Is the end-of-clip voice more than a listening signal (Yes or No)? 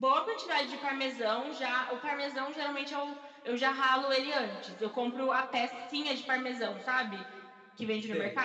No